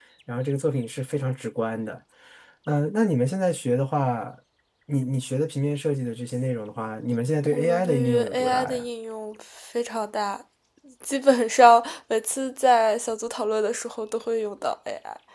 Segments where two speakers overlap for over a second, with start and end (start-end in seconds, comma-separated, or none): 7.4-8.8